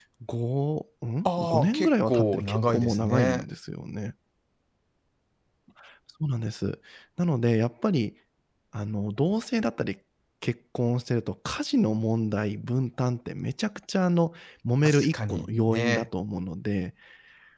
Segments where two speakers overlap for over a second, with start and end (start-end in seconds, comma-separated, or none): 1.2-3.5, 14.8-16.1